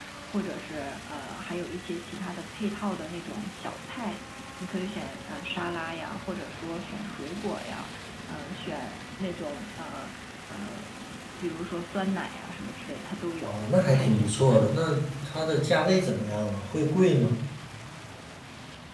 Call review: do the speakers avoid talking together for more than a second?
No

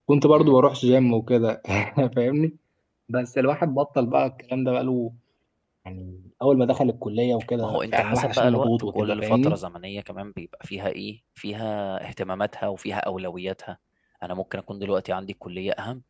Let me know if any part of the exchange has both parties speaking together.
Yes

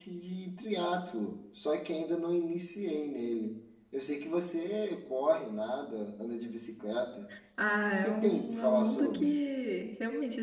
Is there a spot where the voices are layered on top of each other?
Yes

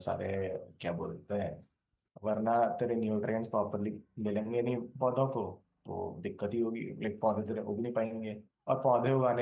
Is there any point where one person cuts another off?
No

